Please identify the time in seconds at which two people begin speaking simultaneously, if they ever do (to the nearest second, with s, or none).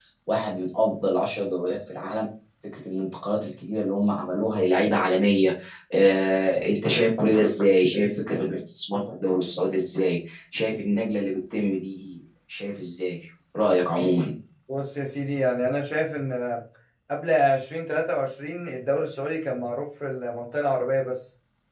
none